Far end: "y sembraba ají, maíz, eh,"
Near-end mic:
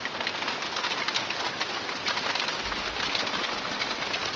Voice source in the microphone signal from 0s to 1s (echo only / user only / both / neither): neither